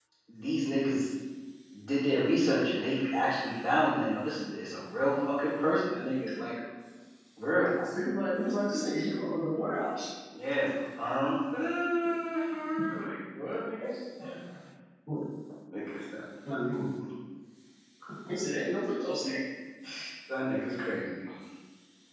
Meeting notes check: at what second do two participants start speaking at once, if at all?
none

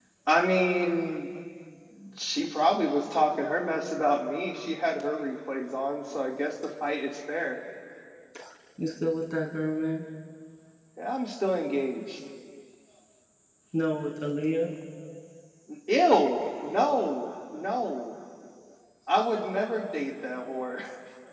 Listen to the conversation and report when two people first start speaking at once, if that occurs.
none

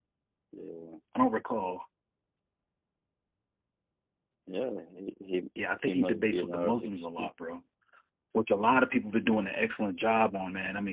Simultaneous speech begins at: 5.9 s

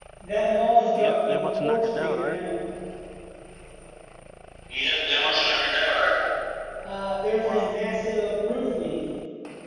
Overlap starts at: 0.9 s

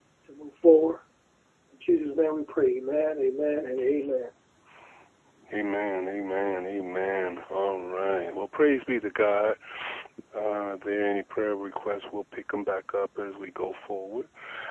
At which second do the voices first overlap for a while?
none

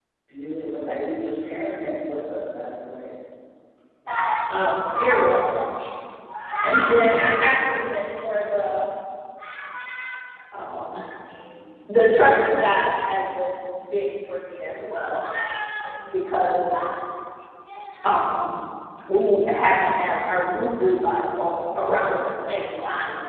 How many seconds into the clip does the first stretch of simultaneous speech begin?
none

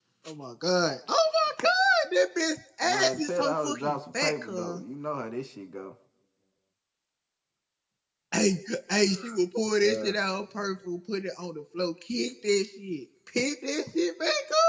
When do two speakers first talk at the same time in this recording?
2.8 s

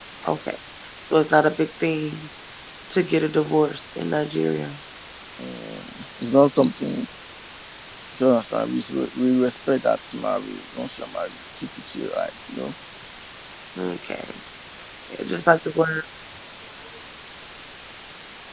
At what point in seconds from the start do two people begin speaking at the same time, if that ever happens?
none

